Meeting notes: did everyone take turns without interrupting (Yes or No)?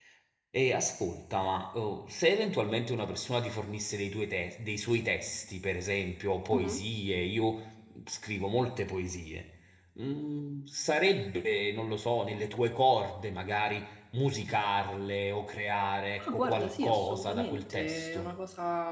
No